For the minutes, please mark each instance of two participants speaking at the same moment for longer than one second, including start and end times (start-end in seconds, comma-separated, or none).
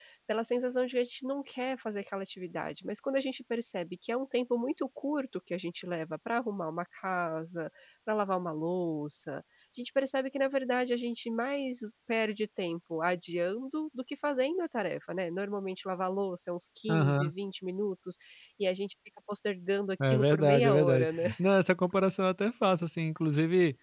20.1-21.4